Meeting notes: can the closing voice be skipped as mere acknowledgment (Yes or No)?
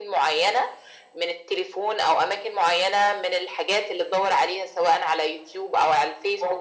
No